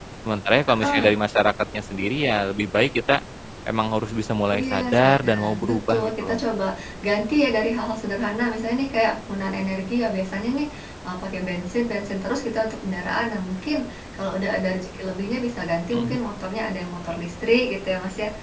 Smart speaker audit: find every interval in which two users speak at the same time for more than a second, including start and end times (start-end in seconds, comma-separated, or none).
4.5-6.5